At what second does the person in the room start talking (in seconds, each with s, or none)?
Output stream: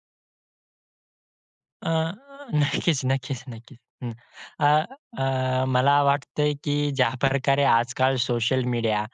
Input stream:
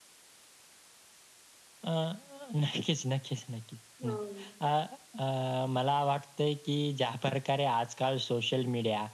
4.0 s